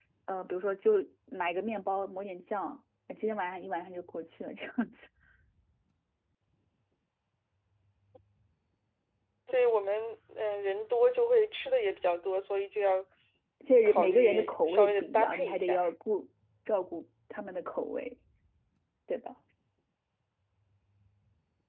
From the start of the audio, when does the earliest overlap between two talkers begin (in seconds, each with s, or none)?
13.8 s